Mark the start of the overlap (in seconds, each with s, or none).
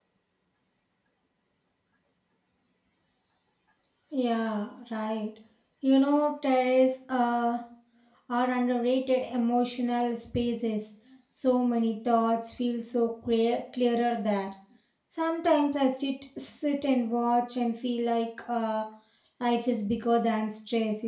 none